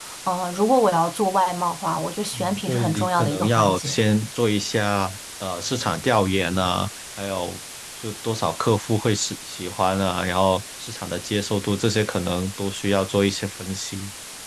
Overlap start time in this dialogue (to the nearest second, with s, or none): 2 s